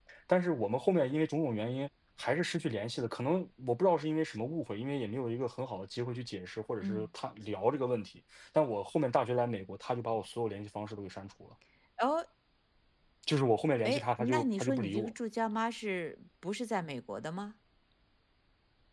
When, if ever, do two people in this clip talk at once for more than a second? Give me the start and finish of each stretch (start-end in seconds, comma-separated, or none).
13.8-15.1